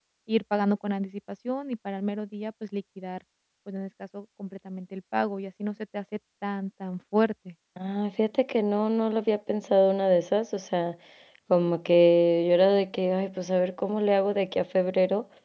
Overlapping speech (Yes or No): No